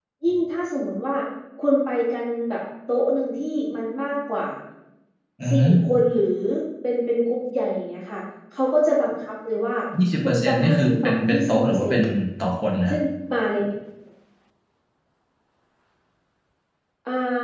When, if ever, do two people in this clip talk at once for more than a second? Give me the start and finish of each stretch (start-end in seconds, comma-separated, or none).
10.2-12.0